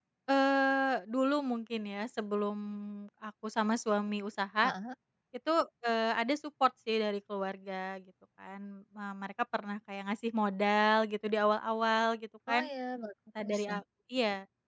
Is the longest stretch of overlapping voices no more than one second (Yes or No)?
Yes